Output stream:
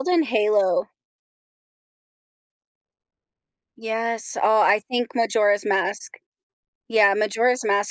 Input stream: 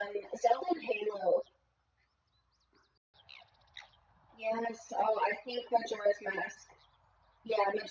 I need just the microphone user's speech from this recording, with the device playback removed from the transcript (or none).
none